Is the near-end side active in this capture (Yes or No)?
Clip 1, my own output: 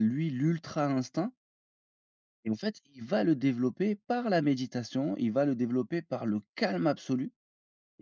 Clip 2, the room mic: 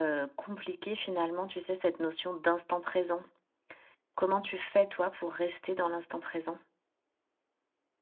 Yes